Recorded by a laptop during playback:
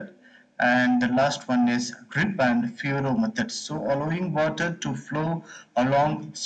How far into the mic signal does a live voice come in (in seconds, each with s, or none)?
none